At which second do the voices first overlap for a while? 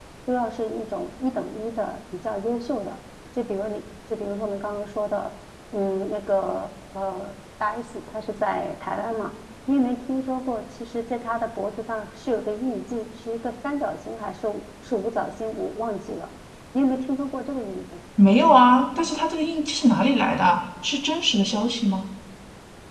none

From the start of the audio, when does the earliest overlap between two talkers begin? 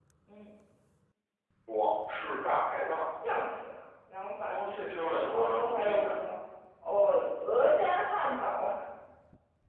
4.5 s

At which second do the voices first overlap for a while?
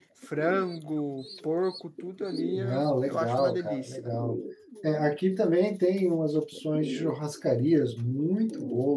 2.6 s

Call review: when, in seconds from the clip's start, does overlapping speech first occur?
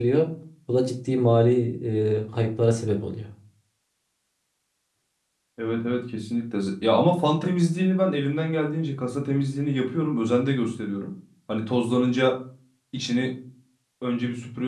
none

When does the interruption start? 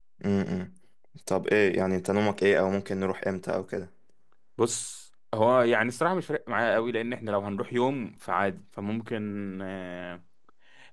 none

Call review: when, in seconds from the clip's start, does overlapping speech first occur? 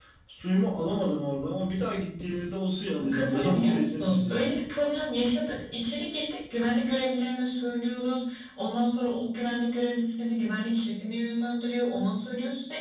3.0 s

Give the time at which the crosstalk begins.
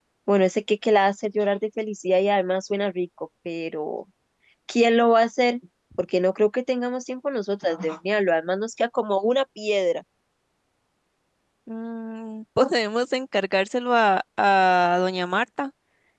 none

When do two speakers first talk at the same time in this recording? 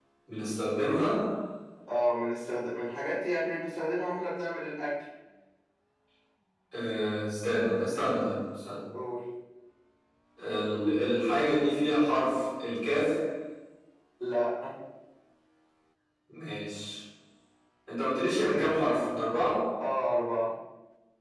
none

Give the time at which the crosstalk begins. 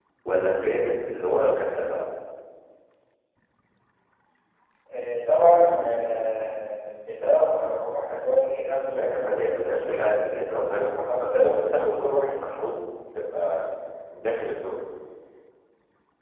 8.9 s

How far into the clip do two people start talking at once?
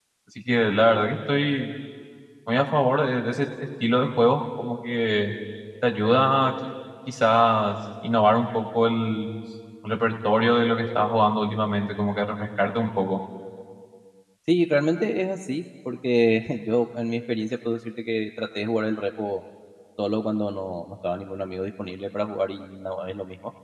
none

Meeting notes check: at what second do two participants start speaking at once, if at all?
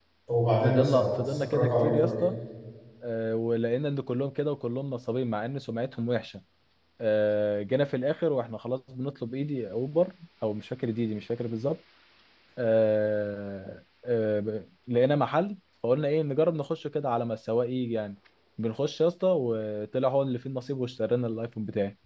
0.6 s

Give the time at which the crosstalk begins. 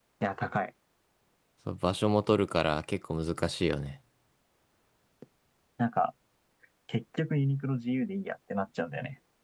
none

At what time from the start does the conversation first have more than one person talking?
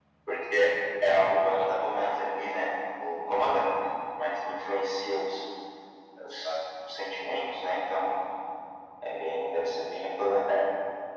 1.4 s

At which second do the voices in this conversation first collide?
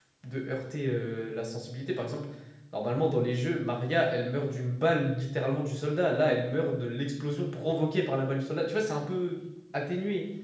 none

